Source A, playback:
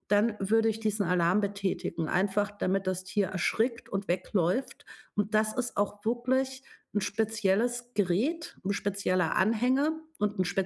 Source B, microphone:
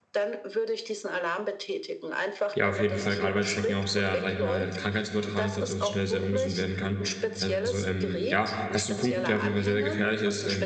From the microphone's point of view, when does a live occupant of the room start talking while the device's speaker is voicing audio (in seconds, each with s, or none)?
2.5 s